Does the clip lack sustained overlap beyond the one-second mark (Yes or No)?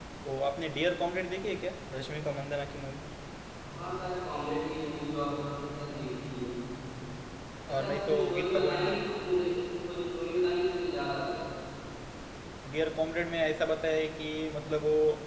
No